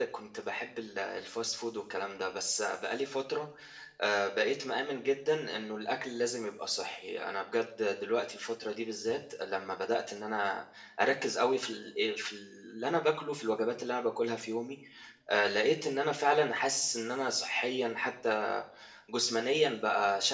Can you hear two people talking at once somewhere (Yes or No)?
No